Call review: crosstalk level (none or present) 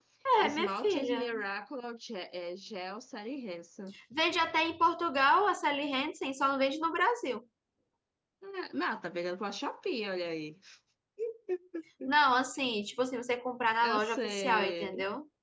present